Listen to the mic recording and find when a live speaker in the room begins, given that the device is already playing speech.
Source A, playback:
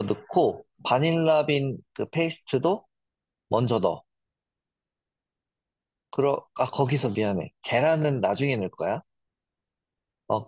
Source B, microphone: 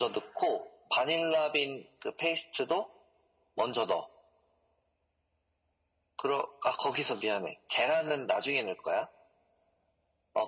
none

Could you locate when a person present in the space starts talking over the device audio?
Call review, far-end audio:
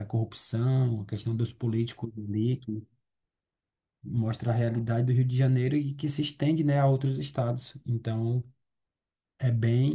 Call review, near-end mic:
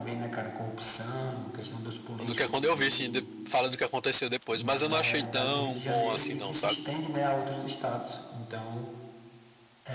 2.2 s

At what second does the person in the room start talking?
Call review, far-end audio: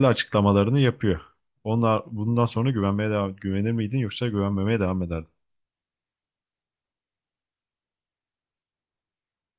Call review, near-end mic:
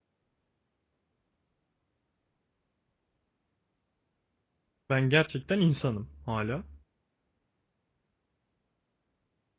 4.9 s

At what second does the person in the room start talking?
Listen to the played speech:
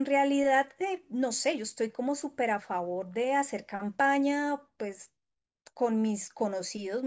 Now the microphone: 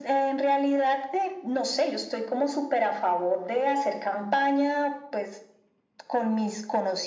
none

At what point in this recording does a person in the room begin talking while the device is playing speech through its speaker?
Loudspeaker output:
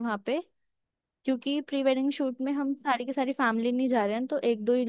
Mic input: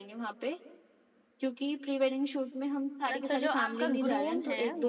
3.1 s

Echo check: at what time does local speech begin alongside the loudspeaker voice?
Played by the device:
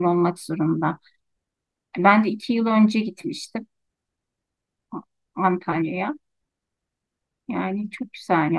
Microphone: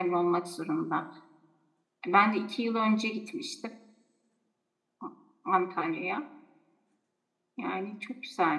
none

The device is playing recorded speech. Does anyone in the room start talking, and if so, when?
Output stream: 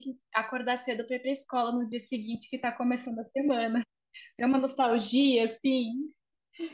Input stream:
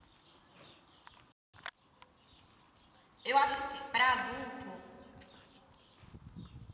3.2 s

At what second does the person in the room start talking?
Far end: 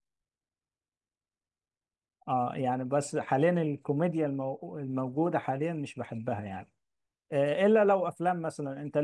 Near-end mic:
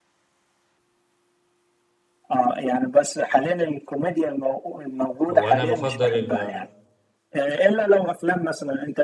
5.3 s

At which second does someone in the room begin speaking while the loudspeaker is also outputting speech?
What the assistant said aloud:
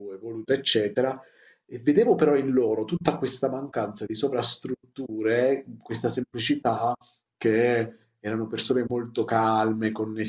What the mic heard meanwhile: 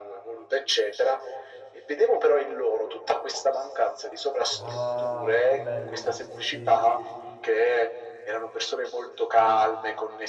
4.5 s

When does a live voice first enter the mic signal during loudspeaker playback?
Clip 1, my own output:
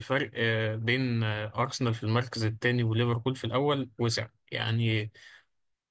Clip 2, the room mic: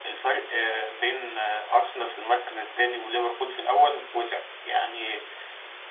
none

